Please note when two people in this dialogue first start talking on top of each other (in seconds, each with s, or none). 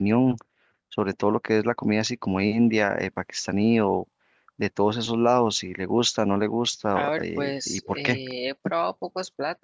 7.0 s